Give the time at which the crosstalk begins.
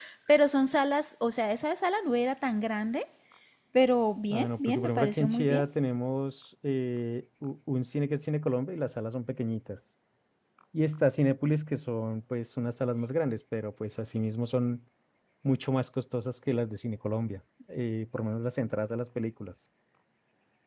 4 s

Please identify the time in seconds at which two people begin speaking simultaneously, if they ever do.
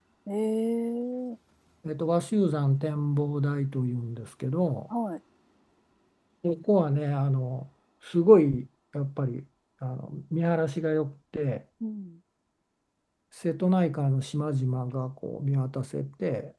none

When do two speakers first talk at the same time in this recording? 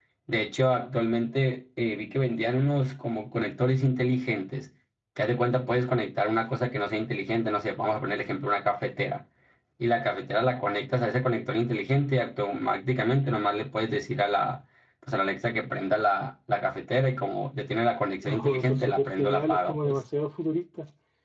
18 s

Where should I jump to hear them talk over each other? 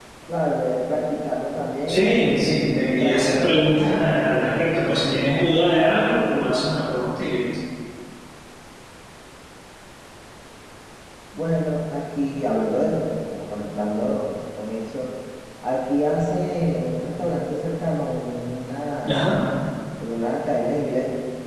2 s

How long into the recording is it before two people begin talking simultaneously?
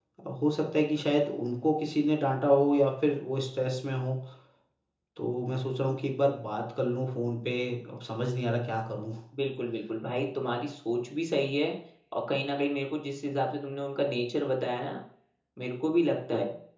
none

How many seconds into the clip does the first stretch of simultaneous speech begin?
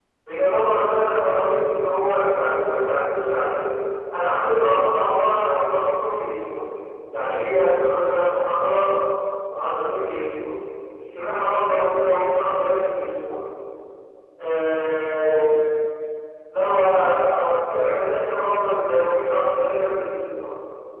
none

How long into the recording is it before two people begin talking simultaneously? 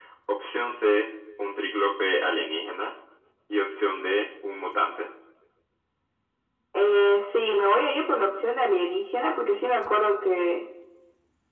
none

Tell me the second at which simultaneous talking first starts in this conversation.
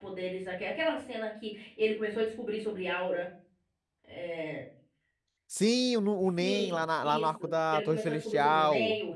6 s

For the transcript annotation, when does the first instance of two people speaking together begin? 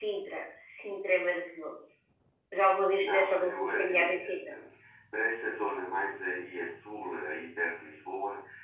3 s

